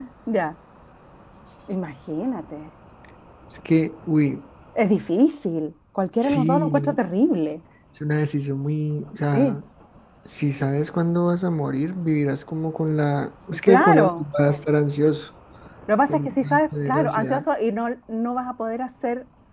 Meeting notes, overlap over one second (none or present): present